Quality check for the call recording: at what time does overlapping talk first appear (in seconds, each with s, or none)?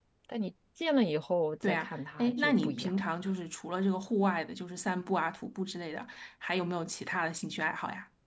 1.6 s